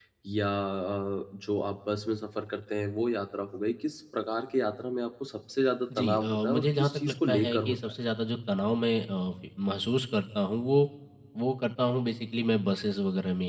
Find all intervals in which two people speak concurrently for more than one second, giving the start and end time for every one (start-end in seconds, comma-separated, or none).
6.0-7.9